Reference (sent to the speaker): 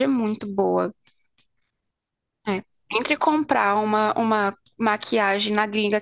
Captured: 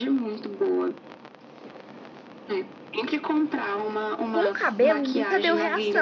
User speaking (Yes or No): Yes